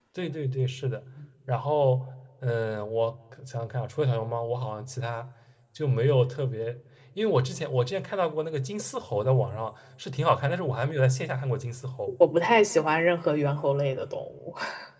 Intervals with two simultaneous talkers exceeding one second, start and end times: none

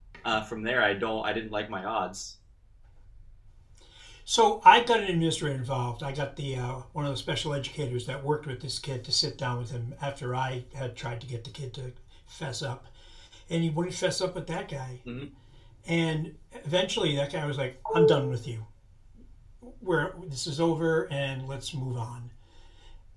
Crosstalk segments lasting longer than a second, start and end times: none

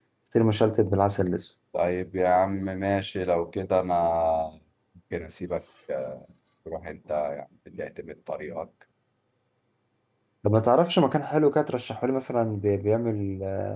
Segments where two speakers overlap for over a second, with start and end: none

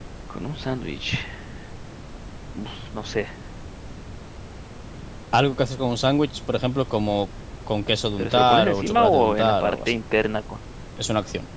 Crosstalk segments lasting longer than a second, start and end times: 8.2-9.9

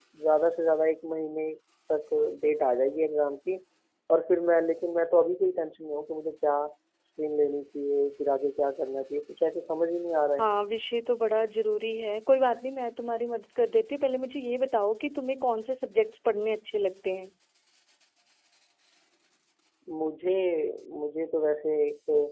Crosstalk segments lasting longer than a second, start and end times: none

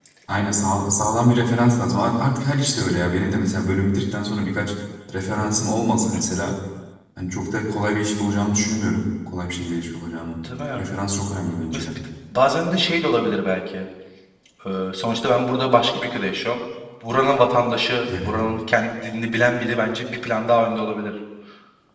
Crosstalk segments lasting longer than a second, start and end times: none

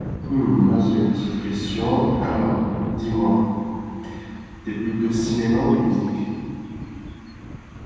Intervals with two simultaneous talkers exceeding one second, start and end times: none

